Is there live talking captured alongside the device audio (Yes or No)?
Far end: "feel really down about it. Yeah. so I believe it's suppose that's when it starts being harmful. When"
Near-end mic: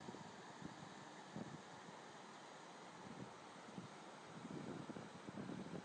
No